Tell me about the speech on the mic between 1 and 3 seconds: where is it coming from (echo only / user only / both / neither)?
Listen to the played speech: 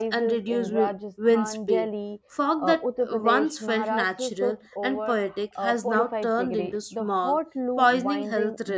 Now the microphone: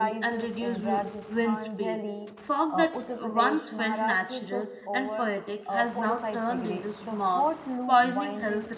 echo only